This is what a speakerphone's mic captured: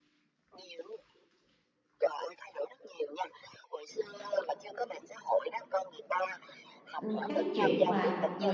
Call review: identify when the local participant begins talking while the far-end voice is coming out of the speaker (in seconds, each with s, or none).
7.0 s